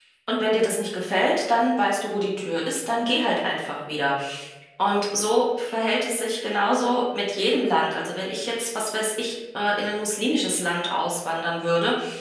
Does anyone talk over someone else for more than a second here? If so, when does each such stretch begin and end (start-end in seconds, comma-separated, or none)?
none